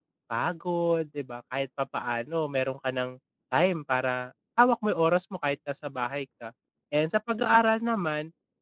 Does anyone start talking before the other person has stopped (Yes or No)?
No